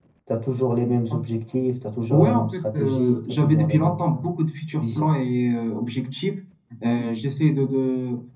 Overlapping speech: Yes, from 2.1 s

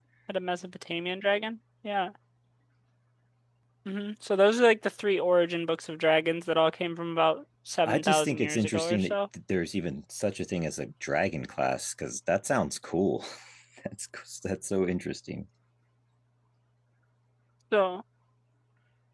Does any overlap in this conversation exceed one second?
Yes, from 7.8 s

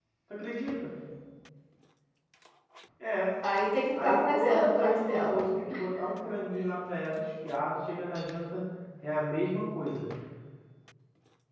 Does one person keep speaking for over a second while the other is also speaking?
Yes, from 3.9 s

